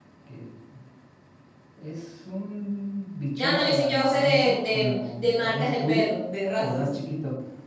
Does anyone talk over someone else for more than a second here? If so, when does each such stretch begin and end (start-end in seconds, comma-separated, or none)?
3.4-6.1